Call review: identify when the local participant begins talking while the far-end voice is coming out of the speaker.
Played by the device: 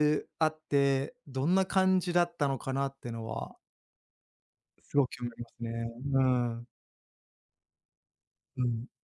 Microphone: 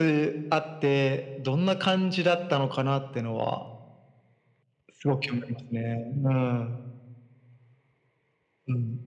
none

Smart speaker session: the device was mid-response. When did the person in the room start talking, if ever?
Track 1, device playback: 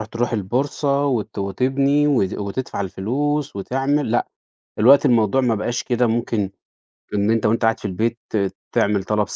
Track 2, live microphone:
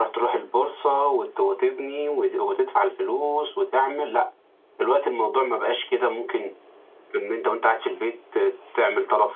none

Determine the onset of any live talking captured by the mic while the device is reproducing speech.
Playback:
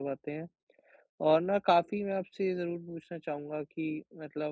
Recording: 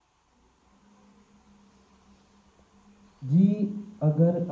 3.2 s

